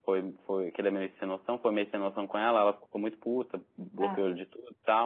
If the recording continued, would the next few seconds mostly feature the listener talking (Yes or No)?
No